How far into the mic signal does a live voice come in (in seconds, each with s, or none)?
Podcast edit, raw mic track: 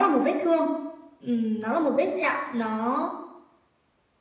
none